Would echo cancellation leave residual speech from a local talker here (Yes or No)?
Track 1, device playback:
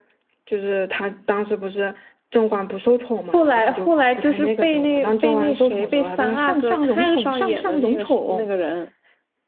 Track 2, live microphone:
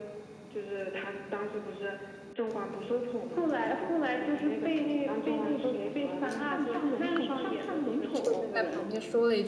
Yes